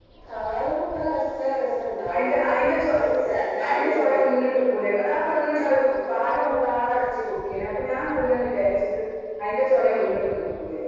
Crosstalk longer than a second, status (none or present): none